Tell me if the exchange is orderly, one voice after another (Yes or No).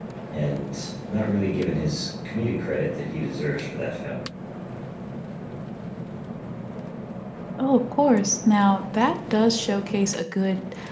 Yes